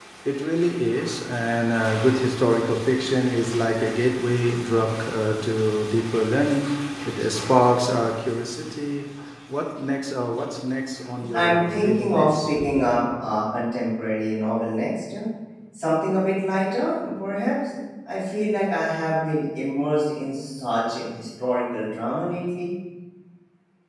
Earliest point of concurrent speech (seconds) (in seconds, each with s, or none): 11.2 s